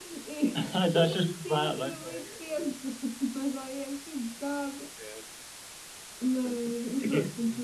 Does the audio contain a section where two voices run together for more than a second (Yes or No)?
Yes